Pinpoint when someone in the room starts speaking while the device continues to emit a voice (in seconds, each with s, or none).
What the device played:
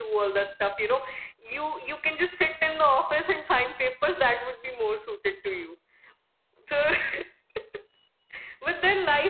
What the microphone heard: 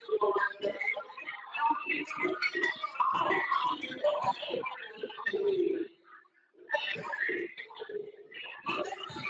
none